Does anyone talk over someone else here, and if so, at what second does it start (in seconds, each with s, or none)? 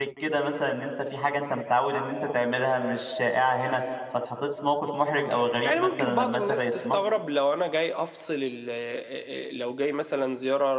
5.6 s